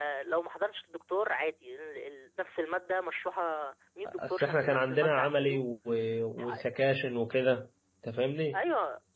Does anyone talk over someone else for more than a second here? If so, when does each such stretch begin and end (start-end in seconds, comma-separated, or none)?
4.3-5.6